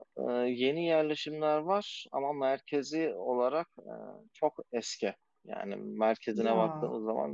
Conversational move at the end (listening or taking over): listening